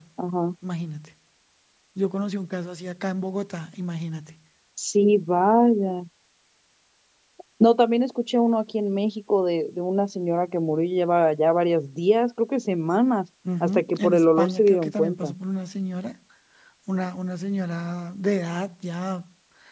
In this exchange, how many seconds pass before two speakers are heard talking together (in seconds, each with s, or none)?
13.4 s